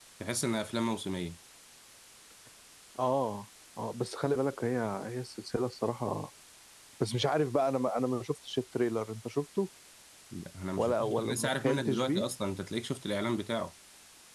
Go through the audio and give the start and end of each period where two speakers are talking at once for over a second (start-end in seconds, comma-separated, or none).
10.8-12.0